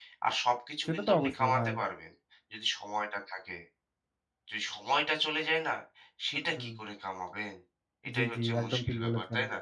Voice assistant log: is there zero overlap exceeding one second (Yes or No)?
No